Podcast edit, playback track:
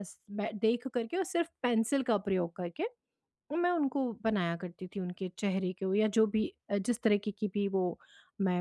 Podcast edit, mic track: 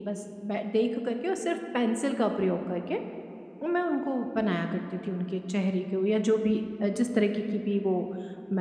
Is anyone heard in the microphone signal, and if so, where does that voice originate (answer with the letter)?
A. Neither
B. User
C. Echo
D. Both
C